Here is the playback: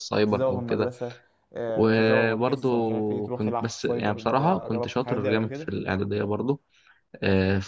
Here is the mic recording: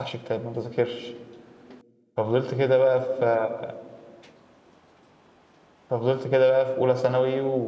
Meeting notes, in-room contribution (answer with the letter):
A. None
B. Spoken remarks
B